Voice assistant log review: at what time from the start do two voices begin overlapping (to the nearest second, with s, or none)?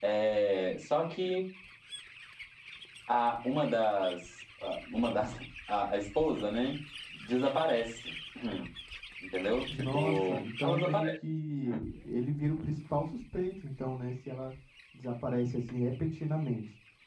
10 s